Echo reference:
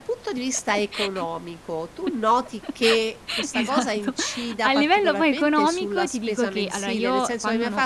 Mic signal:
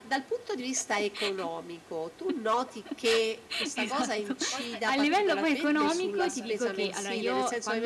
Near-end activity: present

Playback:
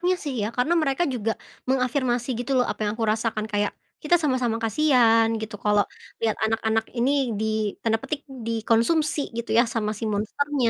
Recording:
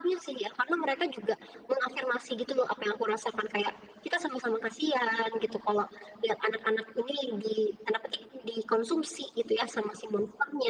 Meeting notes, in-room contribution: none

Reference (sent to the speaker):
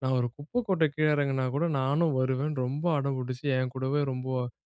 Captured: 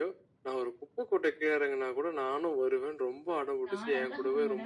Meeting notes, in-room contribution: present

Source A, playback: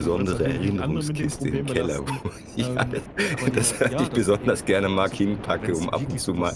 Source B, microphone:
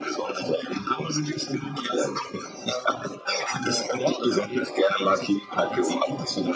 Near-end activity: none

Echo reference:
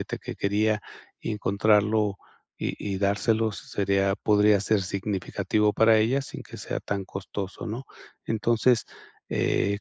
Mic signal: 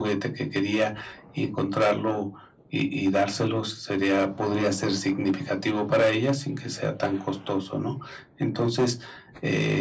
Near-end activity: none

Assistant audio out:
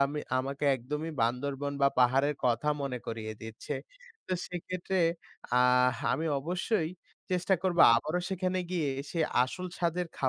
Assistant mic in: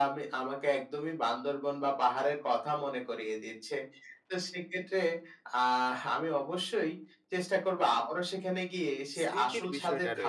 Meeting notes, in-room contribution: present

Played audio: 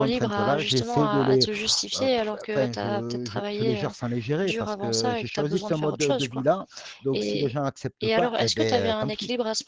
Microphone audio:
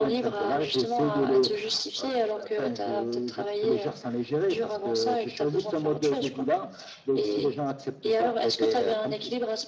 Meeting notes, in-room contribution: none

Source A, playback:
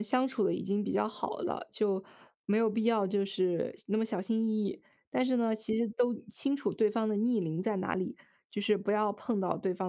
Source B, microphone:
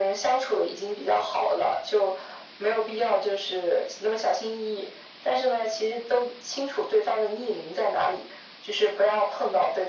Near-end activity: none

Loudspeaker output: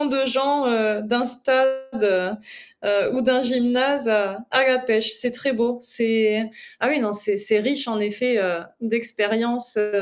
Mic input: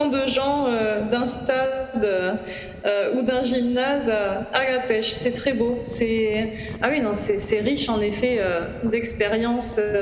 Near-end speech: none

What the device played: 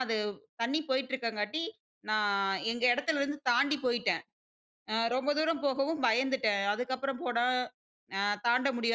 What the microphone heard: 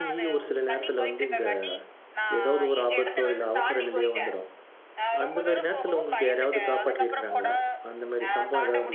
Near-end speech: present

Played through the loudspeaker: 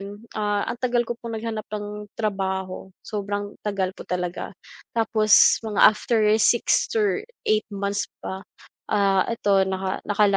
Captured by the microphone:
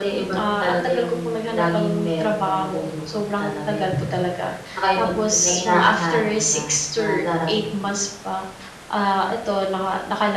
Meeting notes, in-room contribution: present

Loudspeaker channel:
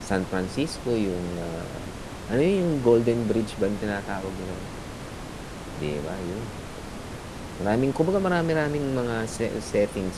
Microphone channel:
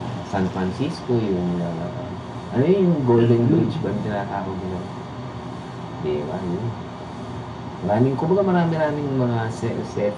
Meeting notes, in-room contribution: present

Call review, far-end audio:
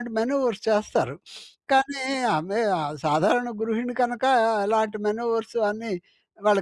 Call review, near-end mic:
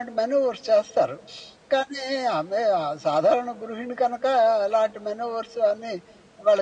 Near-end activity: none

